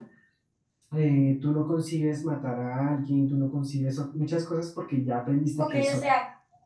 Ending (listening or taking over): taking over